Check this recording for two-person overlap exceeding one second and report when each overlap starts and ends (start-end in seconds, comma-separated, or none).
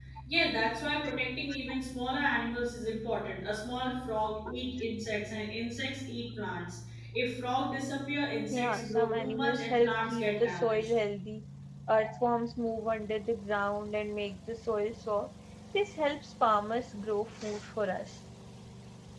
8.5-10.9